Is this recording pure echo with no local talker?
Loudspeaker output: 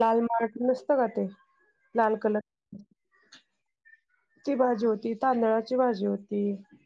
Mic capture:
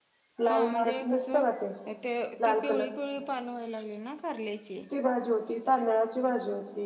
No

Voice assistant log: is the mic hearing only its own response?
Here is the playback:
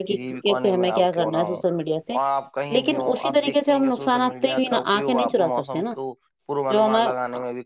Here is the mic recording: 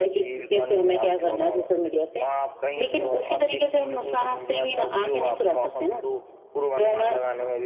Yes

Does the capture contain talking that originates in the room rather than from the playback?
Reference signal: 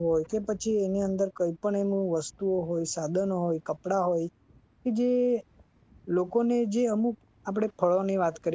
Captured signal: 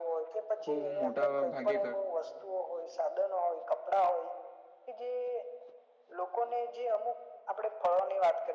Yes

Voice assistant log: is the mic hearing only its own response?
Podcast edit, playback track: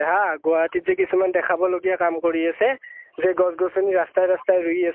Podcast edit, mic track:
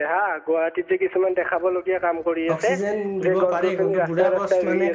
No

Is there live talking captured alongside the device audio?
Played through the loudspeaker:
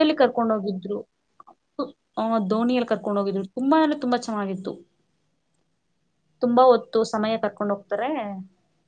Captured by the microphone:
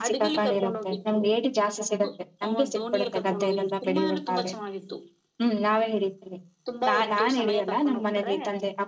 Yes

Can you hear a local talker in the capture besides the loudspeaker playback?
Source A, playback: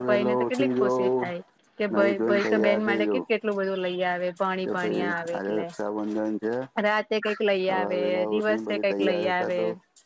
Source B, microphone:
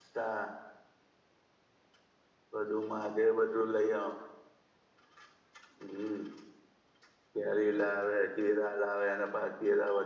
Yes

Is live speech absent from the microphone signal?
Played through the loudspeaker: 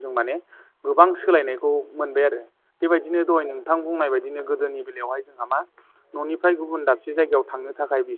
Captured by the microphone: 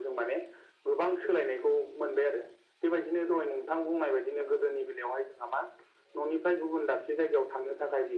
Yes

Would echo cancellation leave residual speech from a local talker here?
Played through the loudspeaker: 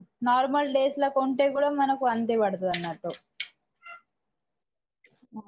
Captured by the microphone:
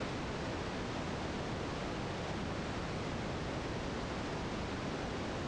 No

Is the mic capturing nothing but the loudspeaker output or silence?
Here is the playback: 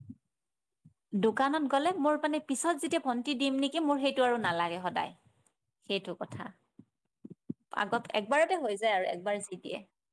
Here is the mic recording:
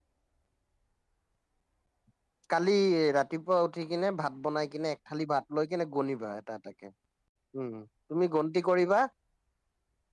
No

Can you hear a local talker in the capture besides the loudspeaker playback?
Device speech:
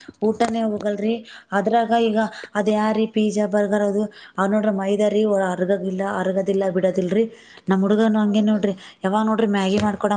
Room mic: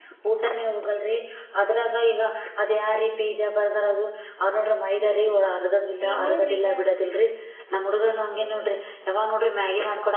Yes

